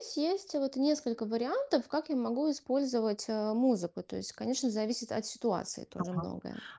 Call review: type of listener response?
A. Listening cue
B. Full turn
B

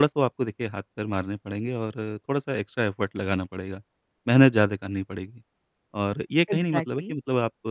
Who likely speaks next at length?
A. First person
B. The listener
A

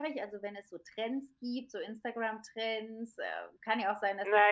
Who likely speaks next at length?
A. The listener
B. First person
A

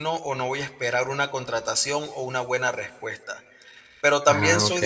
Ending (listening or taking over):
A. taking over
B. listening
B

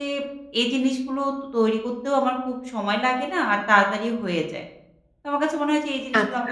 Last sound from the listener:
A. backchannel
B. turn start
A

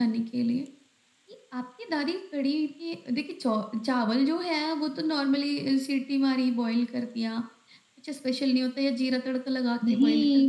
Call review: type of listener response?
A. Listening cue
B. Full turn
B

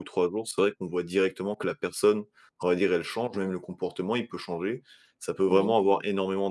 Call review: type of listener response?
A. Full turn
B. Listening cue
B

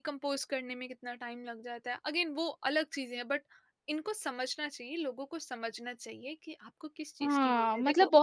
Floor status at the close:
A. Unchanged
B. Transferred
B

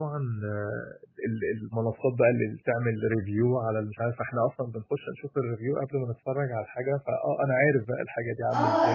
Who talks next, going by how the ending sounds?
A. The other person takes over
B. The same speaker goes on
A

